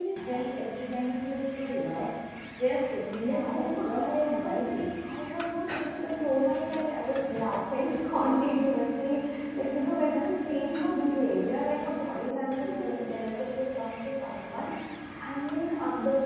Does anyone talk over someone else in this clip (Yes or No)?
Yes